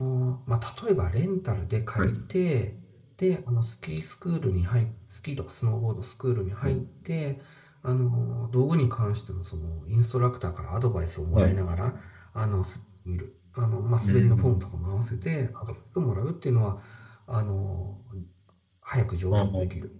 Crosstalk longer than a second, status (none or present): none